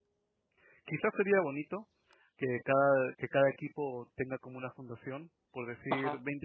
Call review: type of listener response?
listening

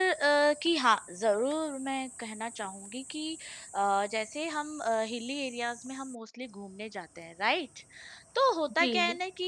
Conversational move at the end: listening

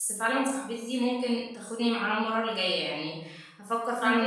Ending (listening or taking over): taking over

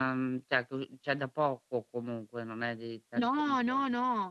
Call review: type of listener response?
taking over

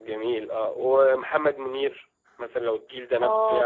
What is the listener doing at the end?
taking over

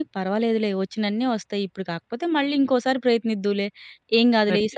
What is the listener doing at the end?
listening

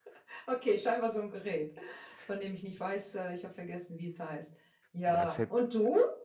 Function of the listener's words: listening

